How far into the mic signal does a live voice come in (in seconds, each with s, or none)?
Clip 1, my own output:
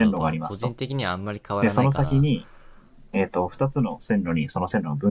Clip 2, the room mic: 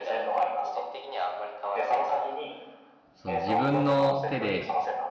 3.1 s